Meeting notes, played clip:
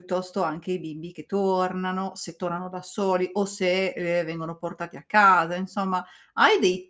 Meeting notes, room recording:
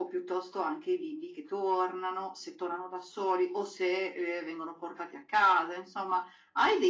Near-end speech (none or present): none